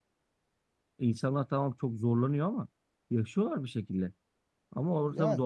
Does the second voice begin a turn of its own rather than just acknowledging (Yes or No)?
No